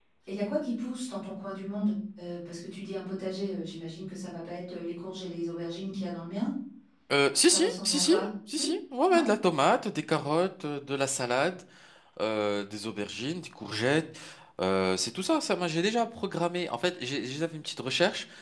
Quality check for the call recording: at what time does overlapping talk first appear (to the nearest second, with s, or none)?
7 s